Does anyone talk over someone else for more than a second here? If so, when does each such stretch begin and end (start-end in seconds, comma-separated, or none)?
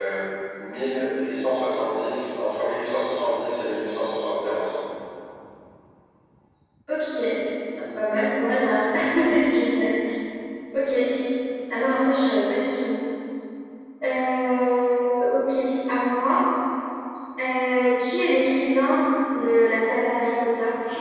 none